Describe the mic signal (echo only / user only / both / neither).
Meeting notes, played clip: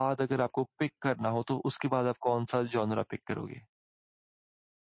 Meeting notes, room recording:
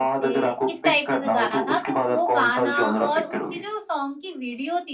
both